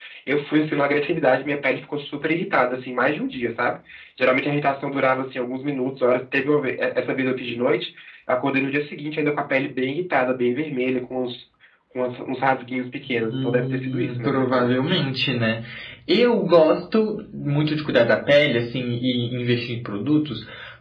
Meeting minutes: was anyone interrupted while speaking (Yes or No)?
Yes